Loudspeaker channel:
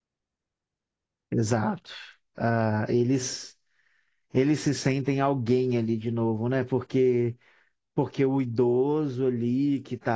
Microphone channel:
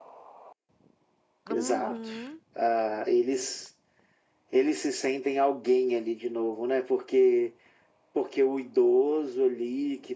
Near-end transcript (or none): Uhum,